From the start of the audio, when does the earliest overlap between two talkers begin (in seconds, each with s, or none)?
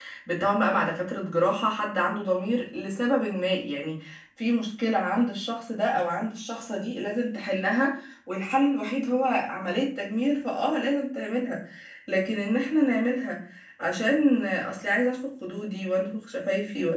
none